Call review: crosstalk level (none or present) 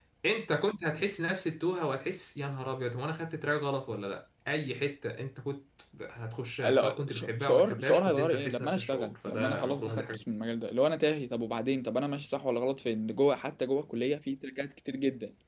present